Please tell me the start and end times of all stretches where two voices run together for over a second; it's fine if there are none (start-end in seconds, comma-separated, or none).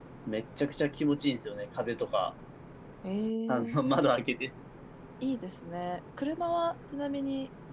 none